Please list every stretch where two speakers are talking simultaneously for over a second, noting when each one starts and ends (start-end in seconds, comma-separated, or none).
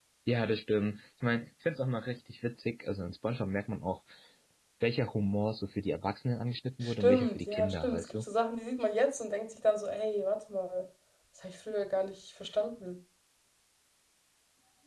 6.8-8.2